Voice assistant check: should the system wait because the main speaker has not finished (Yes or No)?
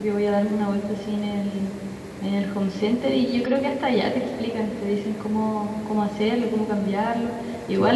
Yes